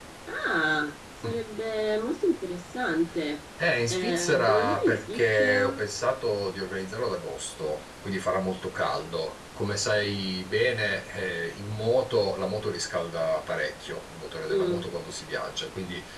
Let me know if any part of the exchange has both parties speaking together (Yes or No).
Yes